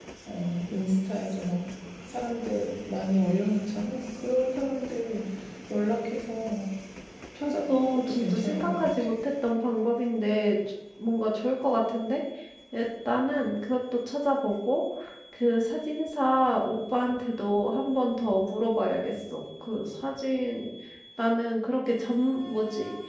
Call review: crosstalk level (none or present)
present